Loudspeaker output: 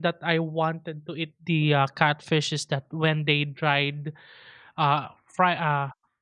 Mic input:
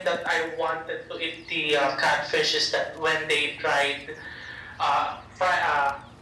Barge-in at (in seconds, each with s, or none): none